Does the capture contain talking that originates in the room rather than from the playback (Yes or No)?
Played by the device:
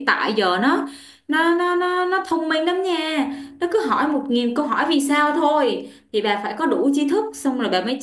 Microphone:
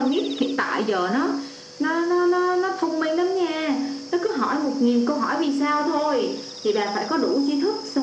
No